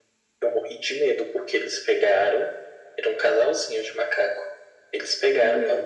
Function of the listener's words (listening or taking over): listening